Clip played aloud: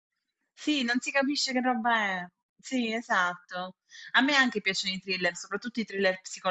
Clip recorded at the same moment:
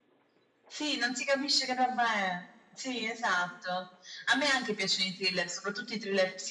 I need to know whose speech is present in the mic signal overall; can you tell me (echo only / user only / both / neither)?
echo only